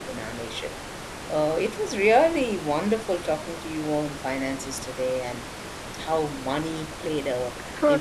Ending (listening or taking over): listening